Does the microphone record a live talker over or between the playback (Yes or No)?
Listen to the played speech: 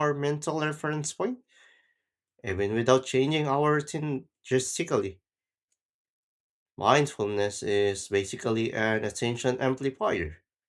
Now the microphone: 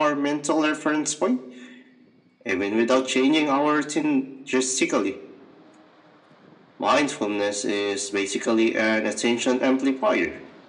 No